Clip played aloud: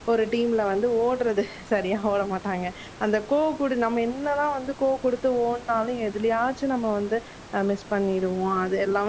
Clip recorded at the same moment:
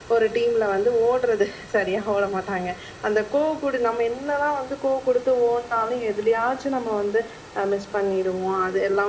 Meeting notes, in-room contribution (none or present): none